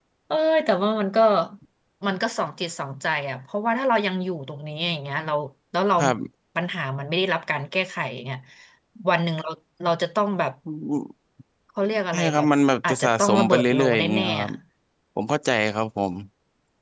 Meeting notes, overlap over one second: present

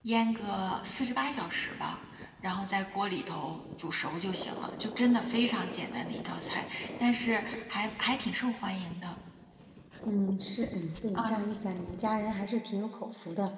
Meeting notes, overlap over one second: none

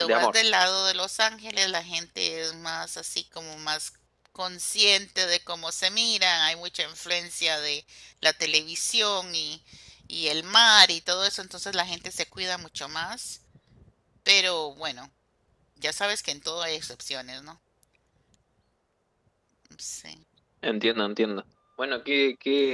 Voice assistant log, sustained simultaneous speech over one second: none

